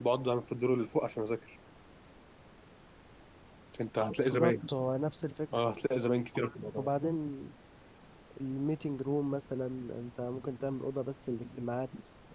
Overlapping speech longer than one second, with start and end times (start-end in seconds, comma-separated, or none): none